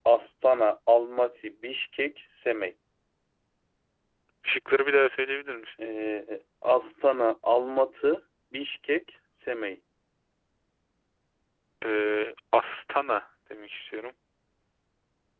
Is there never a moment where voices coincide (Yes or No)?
Yes